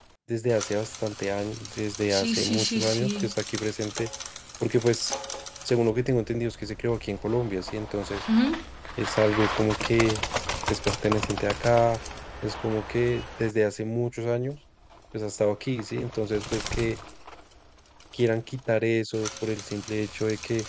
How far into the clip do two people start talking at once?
2.1 s

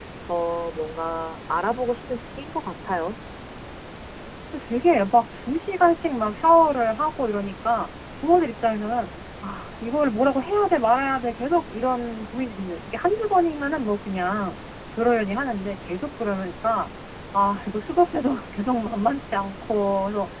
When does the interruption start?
none

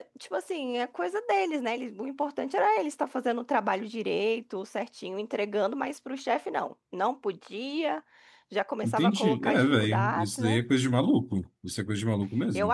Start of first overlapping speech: 8.8 s

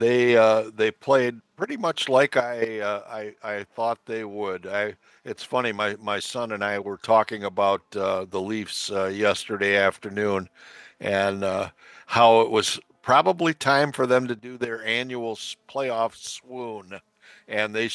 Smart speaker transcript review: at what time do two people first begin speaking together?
none

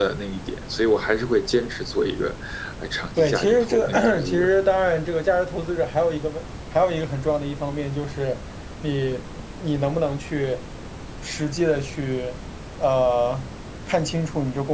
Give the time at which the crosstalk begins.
3.2 s

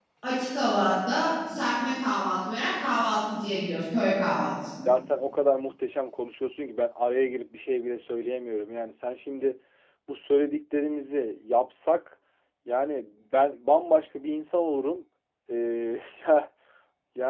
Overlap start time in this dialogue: none

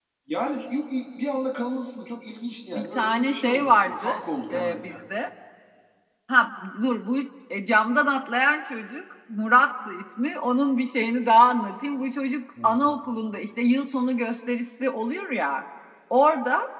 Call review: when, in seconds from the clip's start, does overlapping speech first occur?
2.8 s

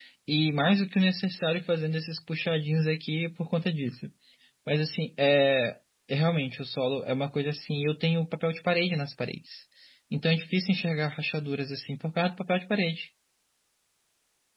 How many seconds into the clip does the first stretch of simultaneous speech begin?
none

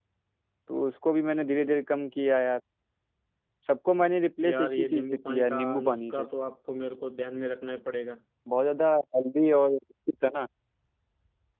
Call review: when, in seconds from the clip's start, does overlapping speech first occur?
4.5 s

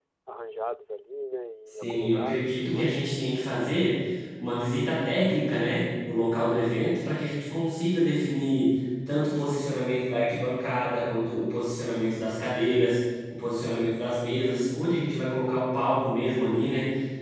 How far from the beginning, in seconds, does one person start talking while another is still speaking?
1.7 s

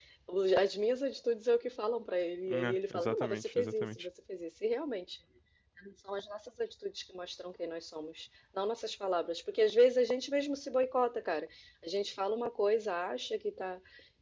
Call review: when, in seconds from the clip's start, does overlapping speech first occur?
2.5 s

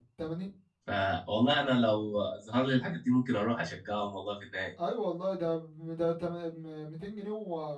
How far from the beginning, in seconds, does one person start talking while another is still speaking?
none

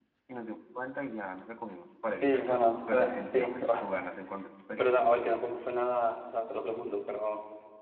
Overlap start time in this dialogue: 2.2 s

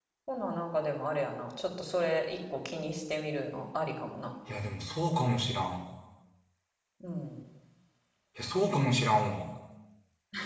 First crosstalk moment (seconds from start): none

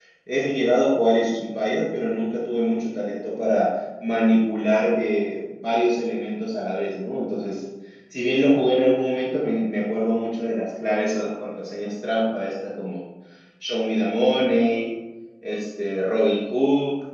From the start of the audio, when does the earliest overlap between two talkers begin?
none

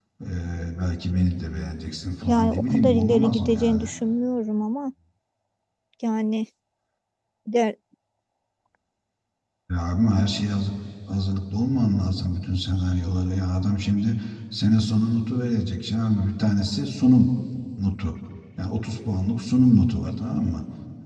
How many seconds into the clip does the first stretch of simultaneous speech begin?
2.2 s

